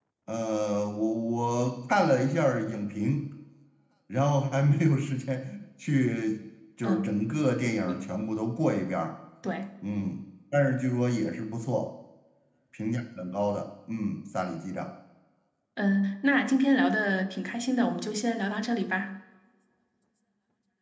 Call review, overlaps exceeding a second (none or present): none